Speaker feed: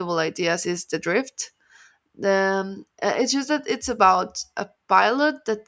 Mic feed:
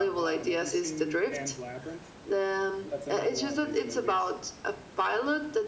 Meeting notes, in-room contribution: present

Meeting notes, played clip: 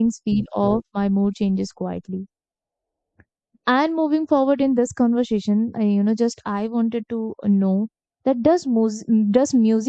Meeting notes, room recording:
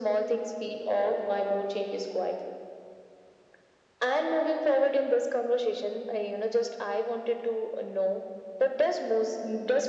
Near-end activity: none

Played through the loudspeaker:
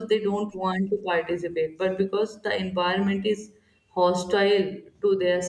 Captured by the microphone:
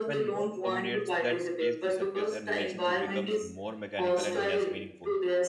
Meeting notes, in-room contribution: present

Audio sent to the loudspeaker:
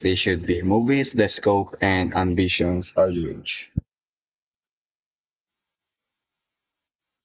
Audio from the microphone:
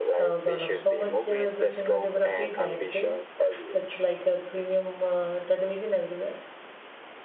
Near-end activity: present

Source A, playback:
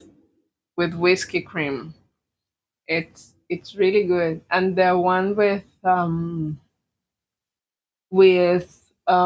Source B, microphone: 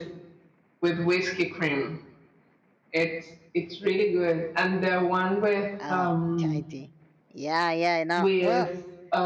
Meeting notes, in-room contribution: present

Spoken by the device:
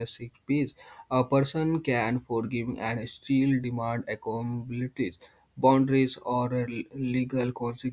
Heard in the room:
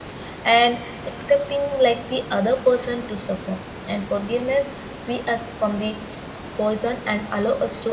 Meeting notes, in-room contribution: present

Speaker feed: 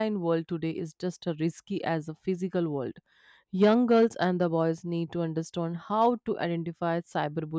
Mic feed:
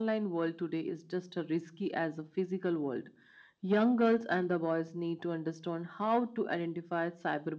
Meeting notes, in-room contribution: none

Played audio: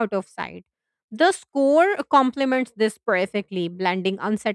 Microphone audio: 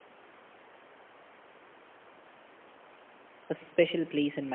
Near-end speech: present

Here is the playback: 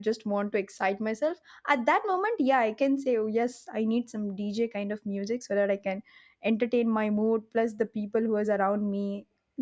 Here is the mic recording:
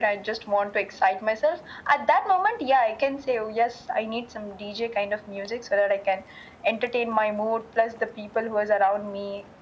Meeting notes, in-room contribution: none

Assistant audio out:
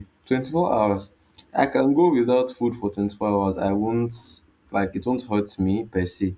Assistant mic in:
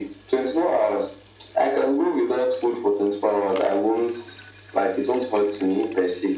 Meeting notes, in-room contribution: none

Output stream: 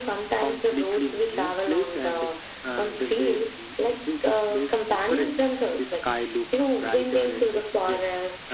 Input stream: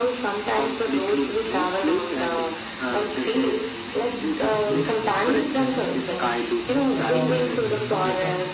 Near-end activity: present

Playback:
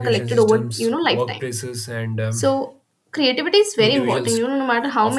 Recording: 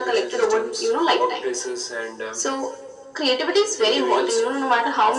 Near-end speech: none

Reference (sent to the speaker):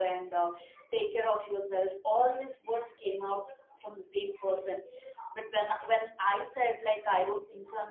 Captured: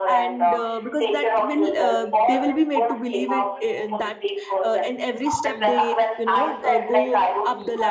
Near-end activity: present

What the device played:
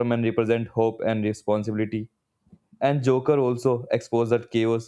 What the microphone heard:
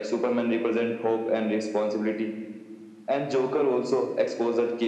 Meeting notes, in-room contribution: none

